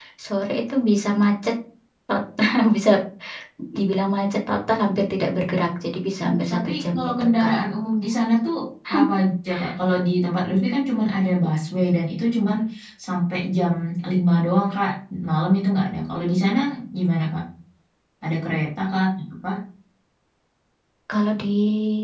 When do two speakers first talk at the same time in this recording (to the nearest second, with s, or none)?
6 s